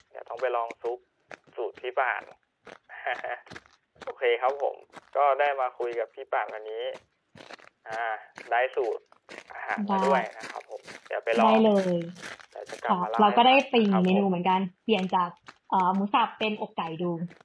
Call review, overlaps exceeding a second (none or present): present